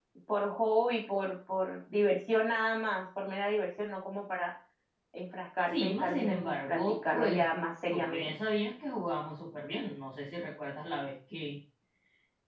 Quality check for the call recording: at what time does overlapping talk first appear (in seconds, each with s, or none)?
5.7 s